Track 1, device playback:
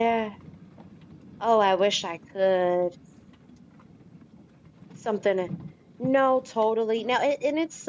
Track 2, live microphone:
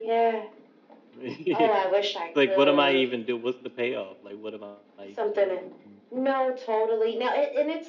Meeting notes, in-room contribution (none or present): present